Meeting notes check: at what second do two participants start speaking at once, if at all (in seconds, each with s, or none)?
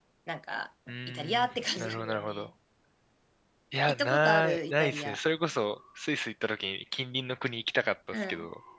1.1 s